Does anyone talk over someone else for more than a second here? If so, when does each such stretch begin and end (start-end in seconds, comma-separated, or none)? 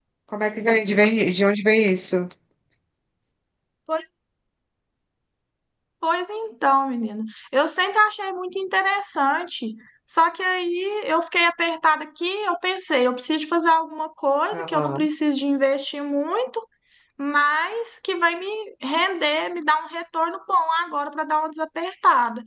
none